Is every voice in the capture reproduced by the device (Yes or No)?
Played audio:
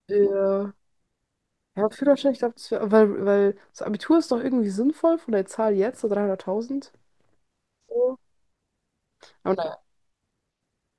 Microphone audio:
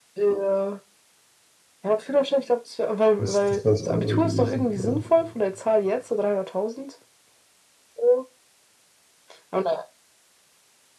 No